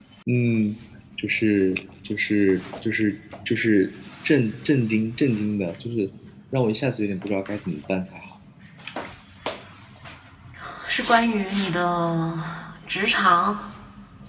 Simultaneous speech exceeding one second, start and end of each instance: none

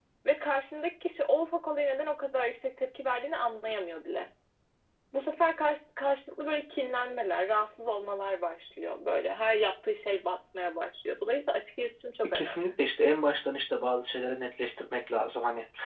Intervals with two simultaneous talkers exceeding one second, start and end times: none

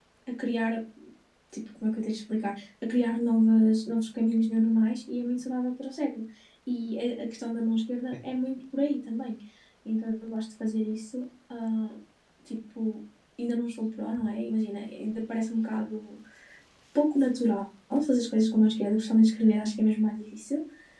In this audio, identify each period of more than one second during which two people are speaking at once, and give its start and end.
none

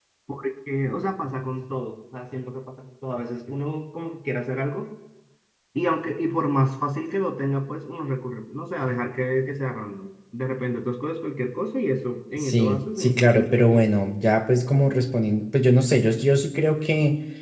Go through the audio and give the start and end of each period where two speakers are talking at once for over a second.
12.4-13.9

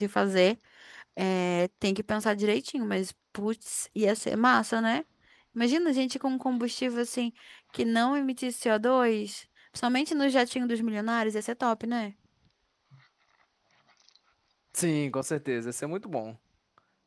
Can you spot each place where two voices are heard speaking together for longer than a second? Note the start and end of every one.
none

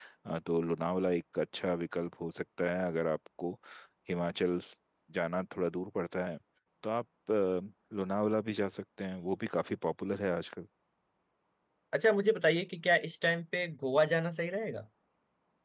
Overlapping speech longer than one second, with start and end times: none

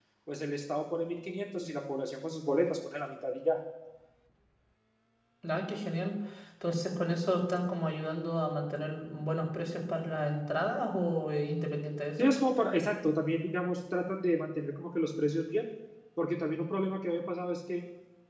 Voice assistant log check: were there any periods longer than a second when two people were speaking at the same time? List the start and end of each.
none

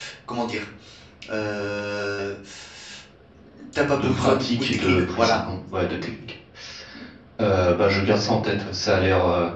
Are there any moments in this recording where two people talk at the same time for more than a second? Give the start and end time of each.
3.9-5.4

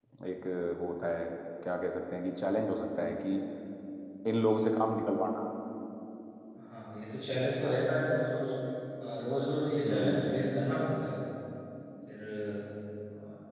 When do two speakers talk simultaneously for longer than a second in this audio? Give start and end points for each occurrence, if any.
none

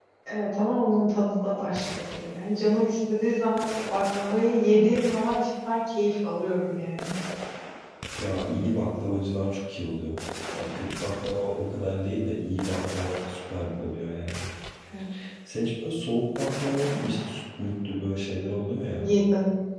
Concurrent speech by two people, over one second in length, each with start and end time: none

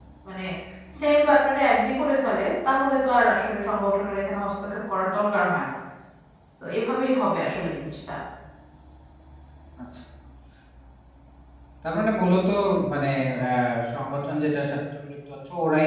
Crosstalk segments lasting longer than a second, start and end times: none

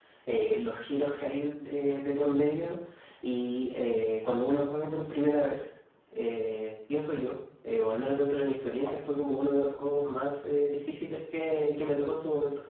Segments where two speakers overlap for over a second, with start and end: none

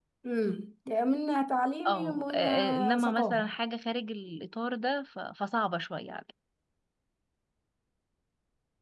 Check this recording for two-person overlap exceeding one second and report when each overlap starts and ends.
1.9-3.5

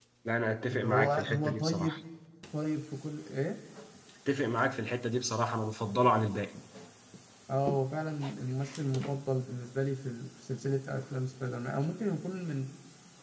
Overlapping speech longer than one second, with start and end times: 0.7-2.0

